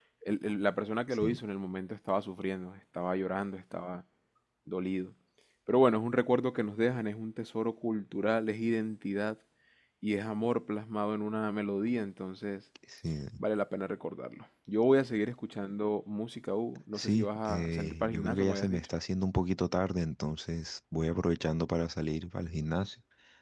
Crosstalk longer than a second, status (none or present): present